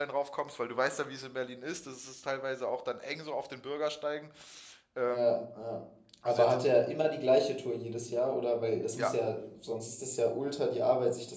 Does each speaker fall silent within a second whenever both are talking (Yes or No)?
Yes